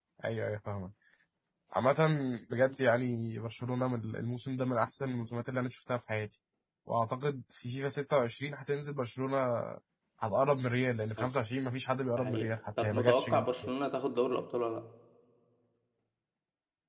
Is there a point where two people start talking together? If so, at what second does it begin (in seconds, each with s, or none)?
12.2 s